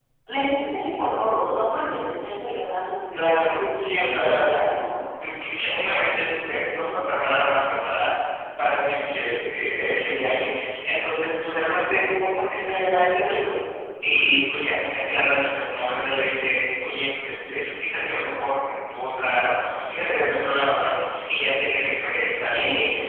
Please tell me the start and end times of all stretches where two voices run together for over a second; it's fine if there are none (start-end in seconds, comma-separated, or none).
3.1-4.4